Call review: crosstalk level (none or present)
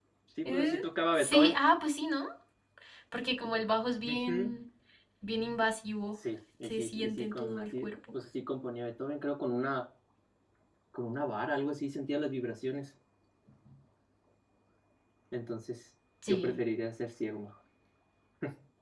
present